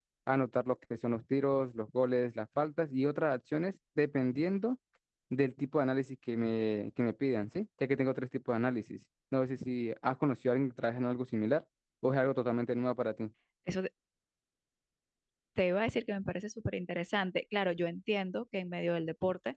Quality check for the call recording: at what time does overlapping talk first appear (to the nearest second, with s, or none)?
none